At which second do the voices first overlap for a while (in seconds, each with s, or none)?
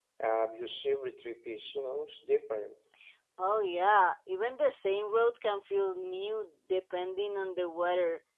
none